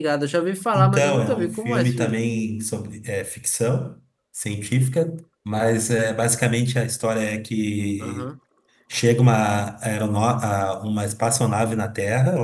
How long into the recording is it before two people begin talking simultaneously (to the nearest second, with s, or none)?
1 s